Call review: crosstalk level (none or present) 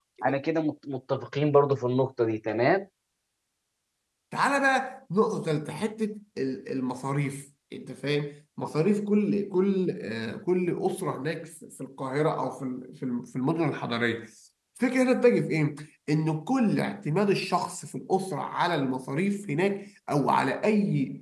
none